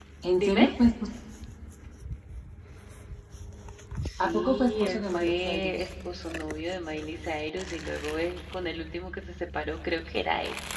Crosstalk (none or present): present